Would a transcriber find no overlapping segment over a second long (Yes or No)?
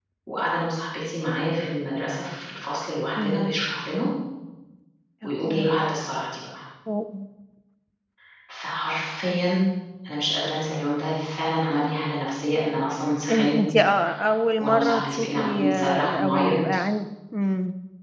No